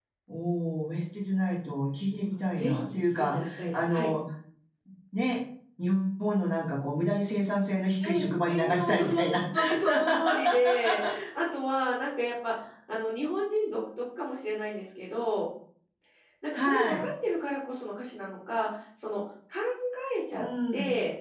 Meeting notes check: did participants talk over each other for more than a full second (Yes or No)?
Yes